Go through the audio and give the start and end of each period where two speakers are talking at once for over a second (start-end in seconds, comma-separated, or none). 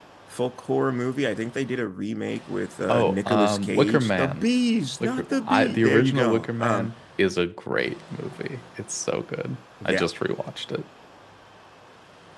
2.9-4.4, 5.0-6.9